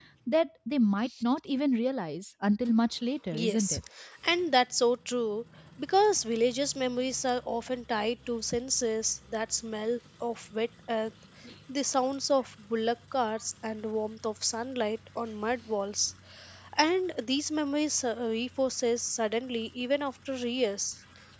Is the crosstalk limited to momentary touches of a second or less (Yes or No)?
Yes